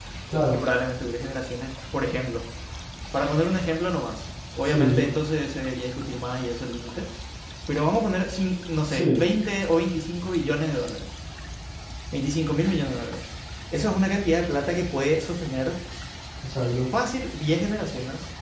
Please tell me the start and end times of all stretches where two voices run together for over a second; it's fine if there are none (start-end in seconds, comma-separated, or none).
none